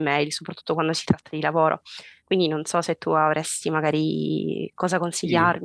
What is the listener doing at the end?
taking over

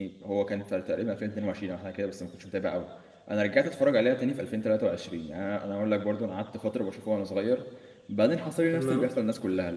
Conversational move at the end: listening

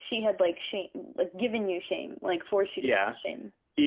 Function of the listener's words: taking over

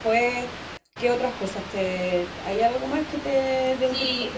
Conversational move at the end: taking over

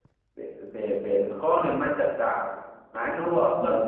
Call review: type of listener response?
listening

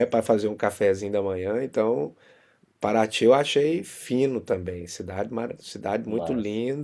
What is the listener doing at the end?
listening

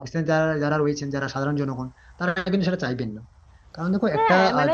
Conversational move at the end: taking over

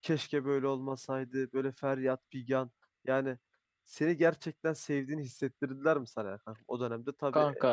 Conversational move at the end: listening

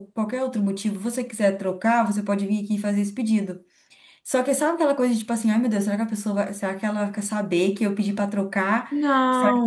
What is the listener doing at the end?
listening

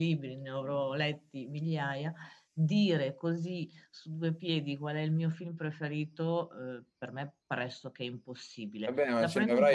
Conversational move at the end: taking over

